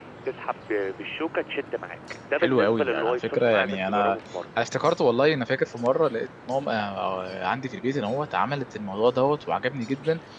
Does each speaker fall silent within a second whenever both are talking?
No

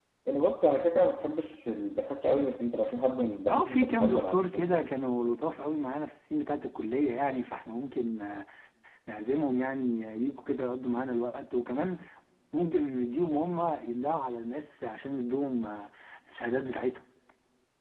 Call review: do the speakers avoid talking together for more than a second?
No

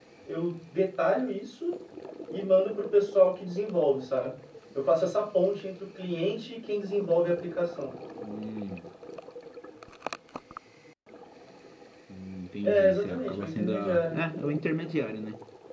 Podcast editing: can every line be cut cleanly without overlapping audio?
No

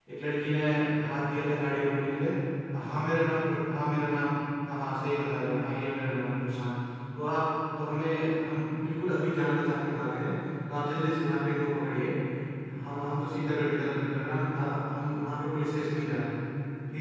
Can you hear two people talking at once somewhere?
No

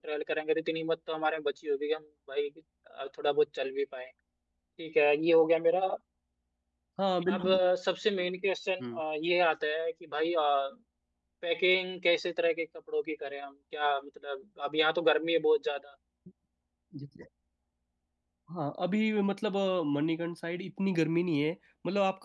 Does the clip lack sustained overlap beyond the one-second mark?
Yes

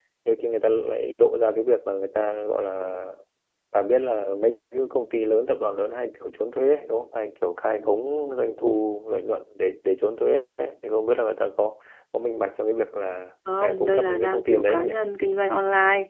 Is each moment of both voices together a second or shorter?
No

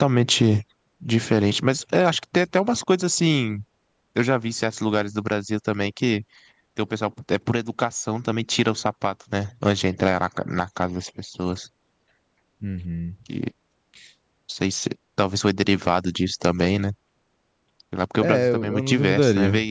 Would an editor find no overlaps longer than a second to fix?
No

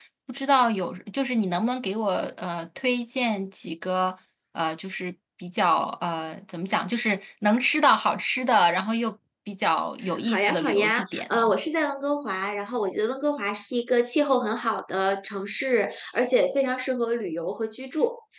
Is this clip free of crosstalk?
No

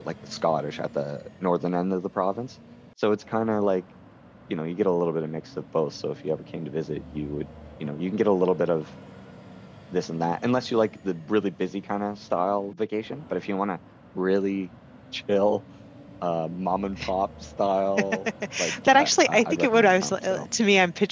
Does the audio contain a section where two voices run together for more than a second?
Yes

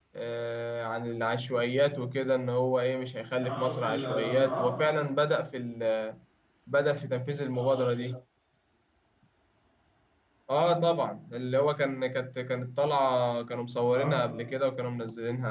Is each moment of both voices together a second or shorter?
No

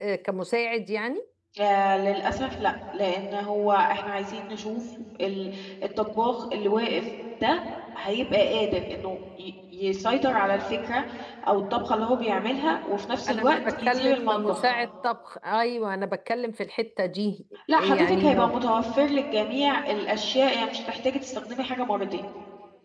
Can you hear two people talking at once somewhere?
Yes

